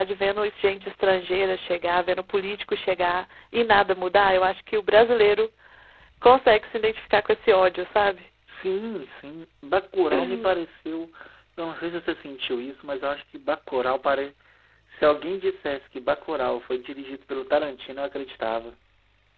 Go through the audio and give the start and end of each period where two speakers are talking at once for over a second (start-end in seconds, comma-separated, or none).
none